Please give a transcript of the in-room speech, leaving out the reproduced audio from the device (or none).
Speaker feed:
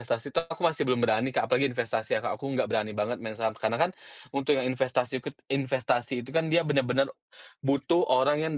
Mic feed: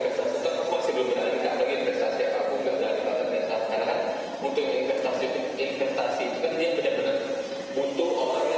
none